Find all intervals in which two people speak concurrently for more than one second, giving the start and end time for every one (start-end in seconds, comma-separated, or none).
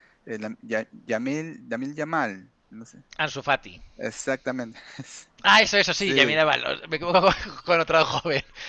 none